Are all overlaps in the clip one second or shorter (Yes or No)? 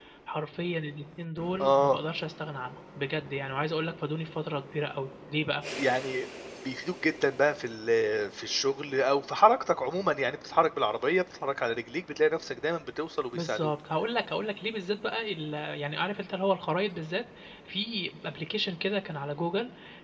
Yes